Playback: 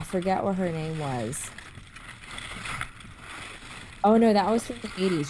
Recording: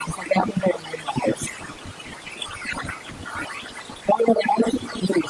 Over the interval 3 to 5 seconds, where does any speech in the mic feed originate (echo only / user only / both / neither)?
echo only